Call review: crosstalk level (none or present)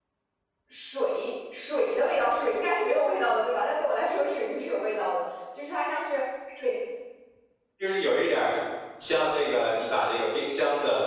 none